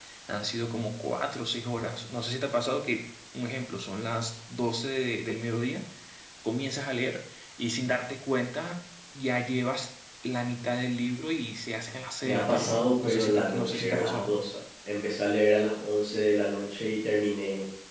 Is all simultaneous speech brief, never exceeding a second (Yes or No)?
No